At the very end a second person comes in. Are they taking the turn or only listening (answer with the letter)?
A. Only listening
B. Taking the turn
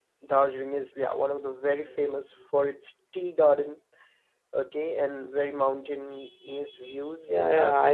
B